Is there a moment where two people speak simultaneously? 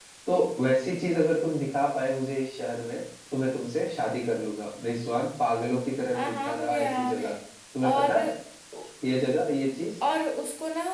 Yes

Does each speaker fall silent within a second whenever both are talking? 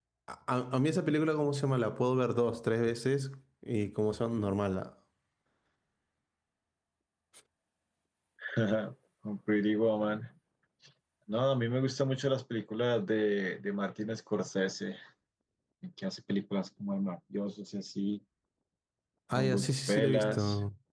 No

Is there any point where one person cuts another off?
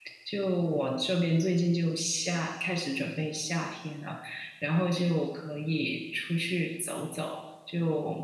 No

